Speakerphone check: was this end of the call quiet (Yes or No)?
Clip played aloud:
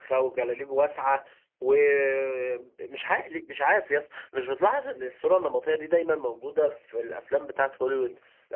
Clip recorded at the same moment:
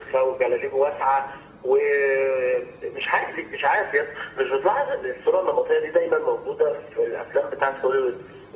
Yes